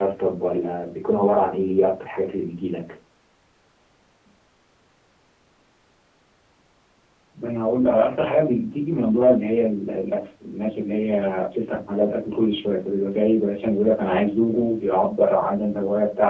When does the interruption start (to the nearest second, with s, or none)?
none